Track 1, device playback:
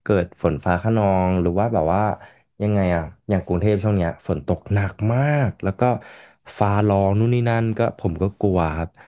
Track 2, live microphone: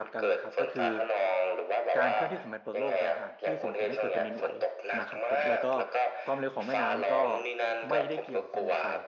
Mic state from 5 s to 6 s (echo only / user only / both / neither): both